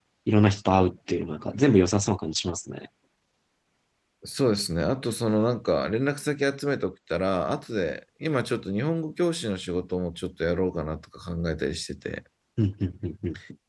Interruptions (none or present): none